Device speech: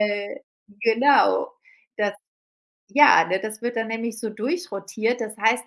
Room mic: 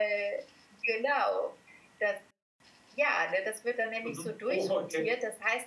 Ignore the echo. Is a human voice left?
Yes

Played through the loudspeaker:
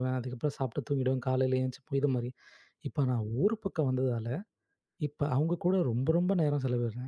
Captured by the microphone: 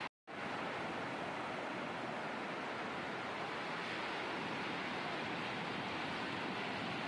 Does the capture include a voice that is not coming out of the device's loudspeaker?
No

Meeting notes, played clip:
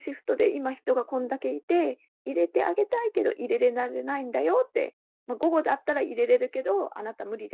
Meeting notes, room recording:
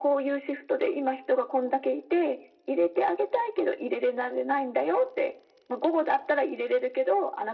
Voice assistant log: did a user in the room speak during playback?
No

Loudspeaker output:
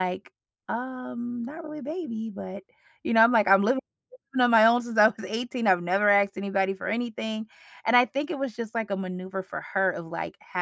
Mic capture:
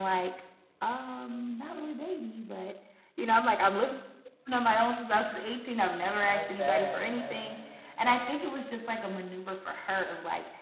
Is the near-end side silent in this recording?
No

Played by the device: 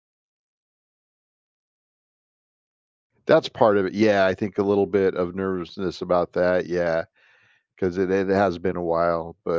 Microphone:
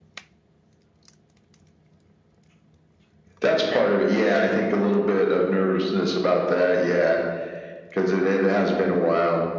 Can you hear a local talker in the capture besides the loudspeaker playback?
No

